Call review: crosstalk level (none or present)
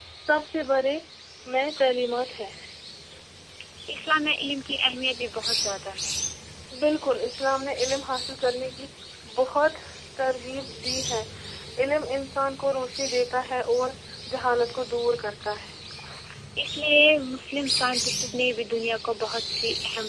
none